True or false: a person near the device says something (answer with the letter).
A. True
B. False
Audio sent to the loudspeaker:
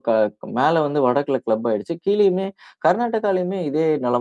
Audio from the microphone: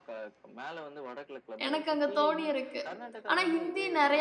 A